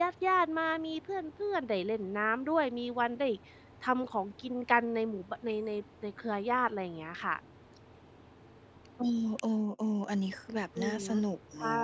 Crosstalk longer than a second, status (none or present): none